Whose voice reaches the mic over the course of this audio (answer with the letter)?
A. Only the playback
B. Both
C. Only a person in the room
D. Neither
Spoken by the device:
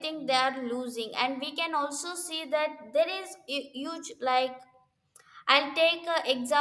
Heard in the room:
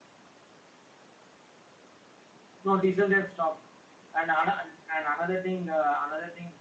C